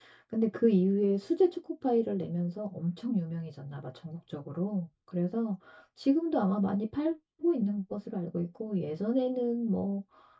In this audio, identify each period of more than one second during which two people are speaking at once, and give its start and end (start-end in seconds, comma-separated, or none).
none